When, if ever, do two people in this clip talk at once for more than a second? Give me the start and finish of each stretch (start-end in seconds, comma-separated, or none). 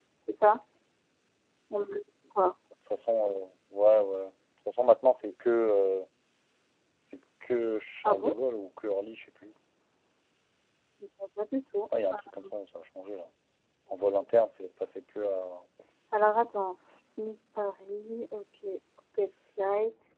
none